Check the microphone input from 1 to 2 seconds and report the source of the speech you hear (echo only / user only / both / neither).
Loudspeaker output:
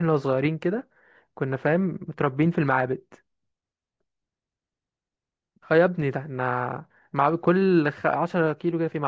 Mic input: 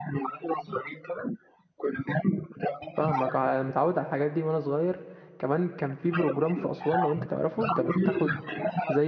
echo only